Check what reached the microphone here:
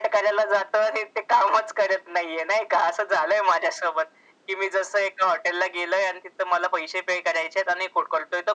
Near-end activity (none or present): none